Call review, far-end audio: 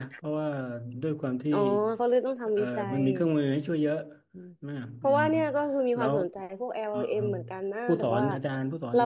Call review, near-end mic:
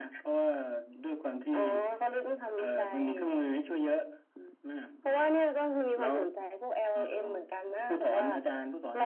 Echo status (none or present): present